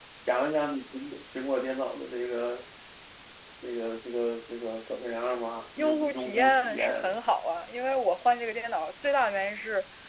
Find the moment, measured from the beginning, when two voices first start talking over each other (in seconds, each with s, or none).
5.8 s